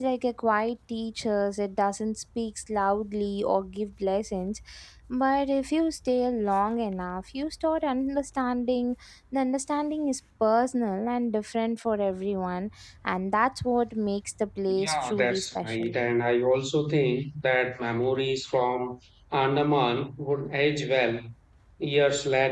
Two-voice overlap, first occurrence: 14.7 s

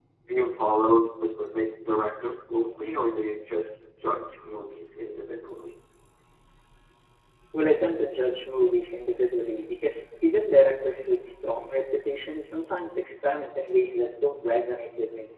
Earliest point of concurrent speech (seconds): none

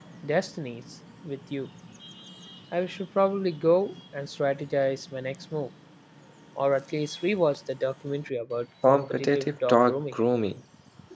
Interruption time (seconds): 8.8 s

